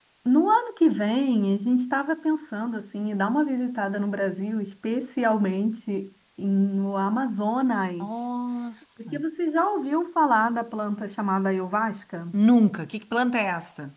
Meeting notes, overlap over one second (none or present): none